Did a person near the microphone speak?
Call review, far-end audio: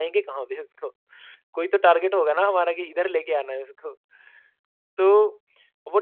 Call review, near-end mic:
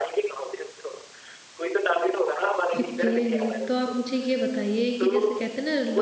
Yes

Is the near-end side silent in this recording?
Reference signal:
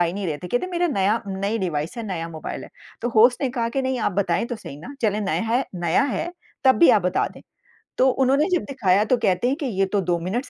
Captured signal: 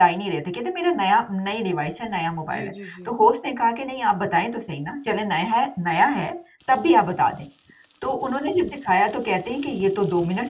No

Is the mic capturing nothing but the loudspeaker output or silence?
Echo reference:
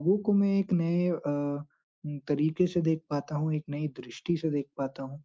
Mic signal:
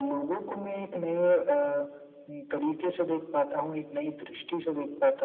Yes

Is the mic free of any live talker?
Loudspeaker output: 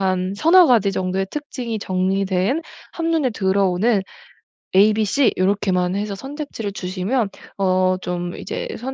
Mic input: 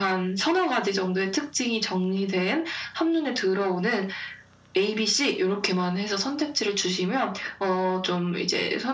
Yes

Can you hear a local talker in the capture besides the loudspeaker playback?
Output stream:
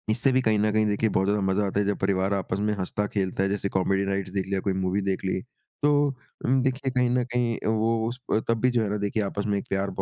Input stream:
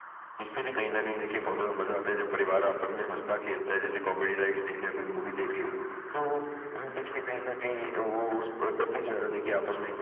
No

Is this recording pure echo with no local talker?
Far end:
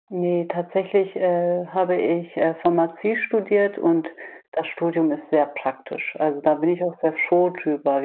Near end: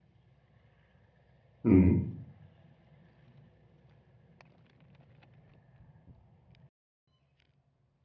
No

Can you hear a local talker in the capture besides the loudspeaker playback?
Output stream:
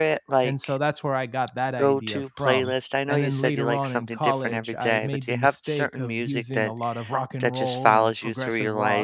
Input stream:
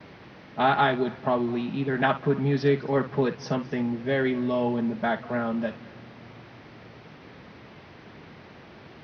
Yes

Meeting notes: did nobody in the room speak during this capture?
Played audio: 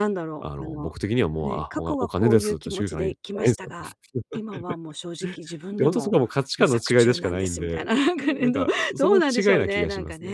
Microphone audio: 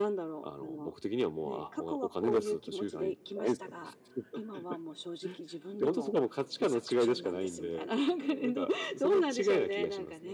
Yes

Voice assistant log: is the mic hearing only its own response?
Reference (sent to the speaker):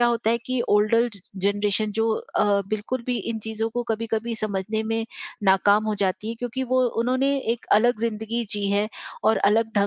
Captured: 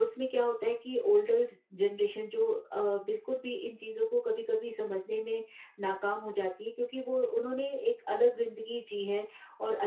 Yes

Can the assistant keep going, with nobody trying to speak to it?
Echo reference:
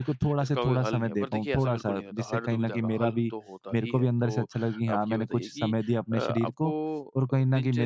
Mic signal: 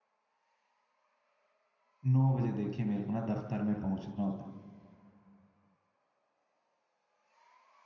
No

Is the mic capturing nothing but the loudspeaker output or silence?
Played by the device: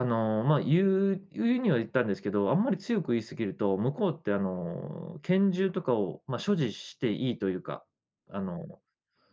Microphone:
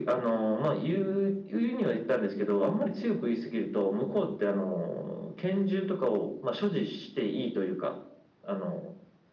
Yes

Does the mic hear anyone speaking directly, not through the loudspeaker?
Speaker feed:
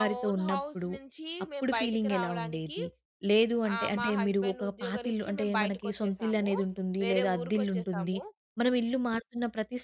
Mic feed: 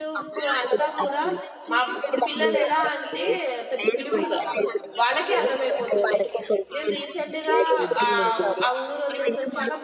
Yes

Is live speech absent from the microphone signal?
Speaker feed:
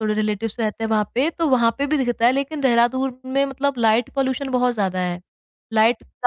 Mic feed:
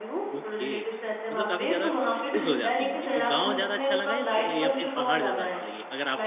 No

